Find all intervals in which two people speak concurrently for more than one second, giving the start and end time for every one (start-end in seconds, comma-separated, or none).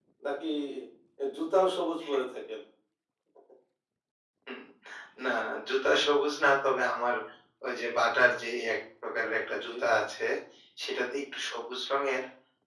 none